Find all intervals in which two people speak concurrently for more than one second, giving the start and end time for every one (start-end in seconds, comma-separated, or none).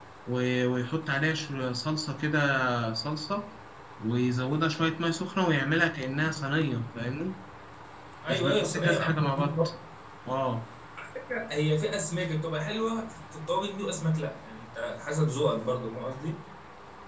8.3-9.5